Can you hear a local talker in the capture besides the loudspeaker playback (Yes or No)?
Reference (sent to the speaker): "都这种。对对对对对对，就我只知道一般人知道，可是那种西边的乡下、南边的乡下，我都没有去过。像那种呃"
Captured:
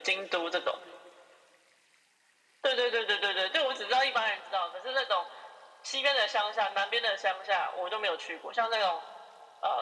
No